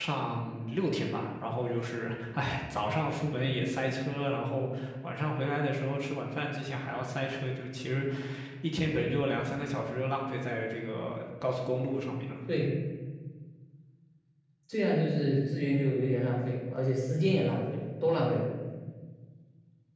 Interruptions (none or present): none